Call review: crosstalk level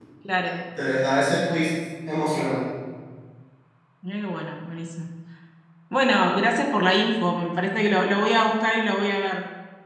none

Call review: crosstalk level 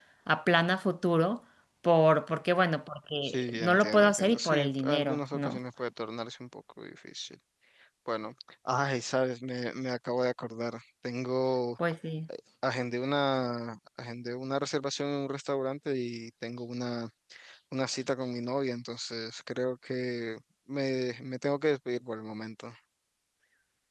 present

